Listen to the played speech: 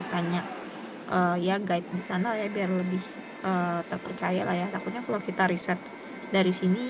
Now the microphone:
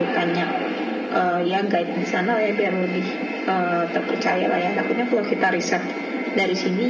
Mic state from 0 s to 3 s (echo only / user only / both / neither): echo only